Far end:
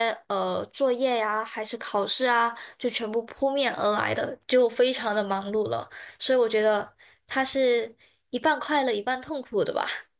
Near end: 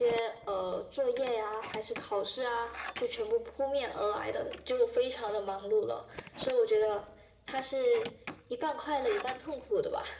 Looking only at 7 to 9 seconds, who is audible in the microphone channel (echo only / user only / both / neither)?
echo only